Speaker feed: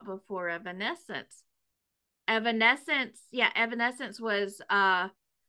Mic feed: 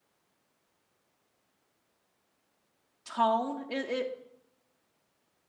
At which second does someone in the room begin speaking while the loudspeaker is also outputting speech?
3.0 s

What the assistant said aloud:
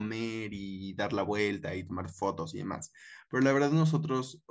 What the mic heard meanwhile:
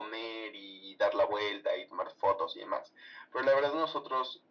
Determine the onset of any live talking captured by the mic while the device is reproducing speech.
none

